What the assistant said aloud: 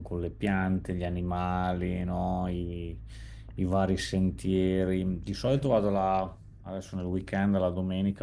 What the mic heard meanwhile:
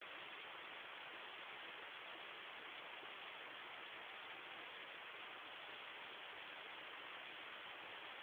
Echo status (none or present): none